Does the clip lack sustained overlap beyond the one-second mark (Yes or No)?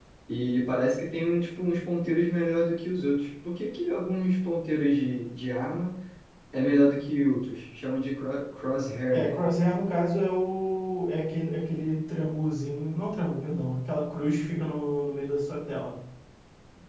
Yes